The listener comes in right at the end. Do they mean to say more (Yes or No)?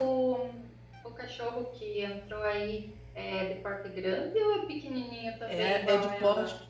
Yes